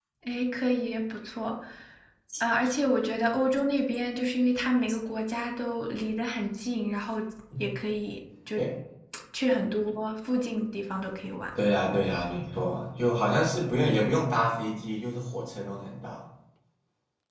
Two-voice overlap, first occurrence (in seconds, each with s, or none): none